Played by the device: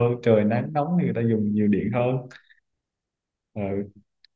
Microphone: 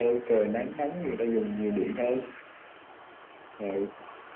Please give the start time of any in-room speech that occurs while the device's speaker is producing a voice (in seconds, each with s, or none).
none